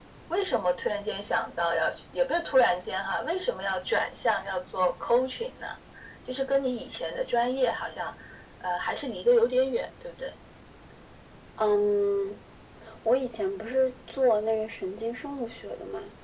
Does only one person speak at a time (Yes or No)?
Yes